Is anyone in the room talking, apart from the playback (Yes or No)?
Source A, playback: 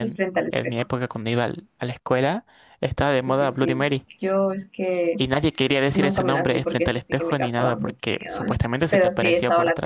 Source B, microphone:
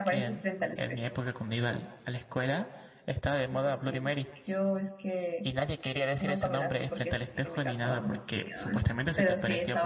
No